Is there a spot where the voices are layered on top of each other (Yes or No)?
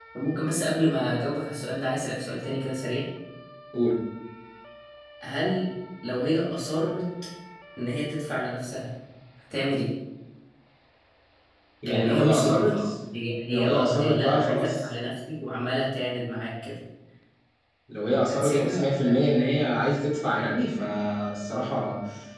Yes